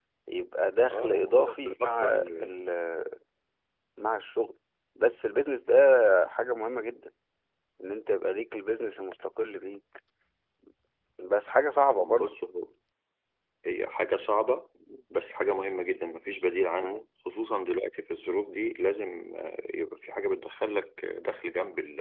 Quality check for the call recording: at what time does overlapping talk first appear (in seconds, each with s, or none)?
0.9 s